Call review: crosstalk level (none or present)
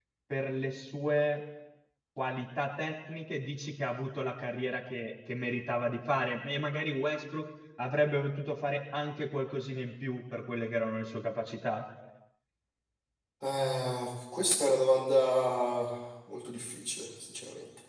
none